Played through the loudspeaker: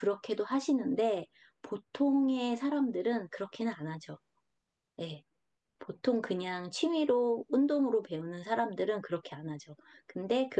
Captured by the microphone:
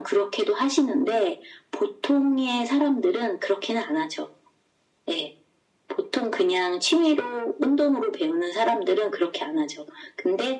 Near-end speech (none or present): none